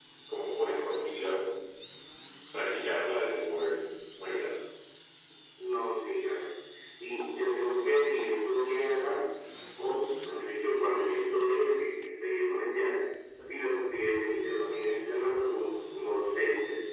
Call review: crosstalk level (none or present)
none